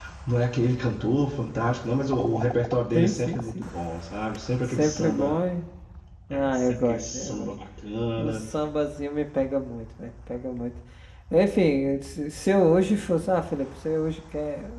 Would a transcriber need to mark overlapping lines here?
Yes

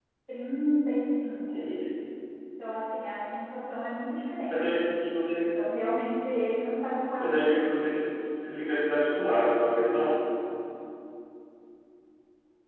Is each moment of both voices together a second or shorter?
Yes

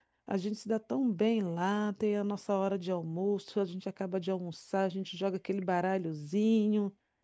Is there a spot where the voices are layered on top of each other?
No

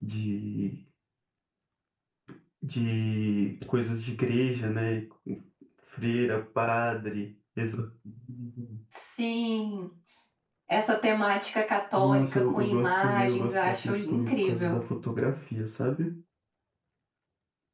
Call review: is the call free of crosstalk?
No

